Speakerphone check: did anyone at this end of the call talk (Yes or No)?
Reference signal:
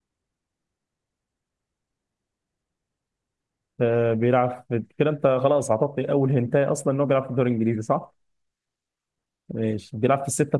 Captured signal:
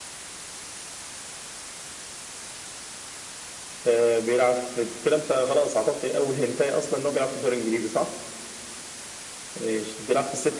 No